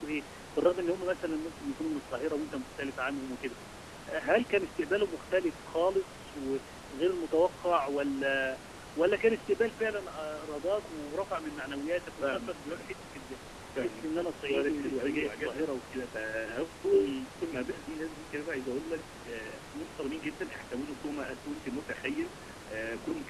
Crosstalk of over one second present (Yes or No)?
Yes